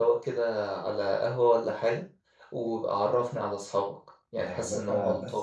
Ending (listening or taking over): taking over